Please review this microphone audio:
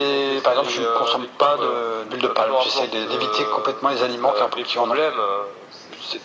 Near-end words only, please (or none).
none